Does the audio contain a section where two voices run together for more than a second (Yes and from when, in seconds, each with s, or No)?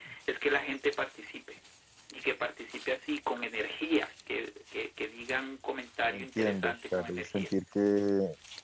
Yes, from 6.1 s